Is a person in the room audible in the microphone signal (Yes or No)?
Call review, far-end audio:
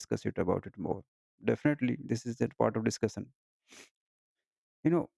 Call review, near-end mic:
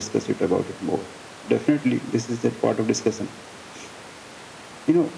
No